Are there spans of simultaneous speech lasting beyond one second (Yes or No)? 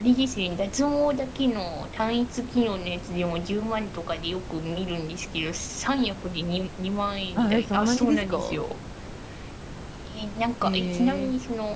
Yes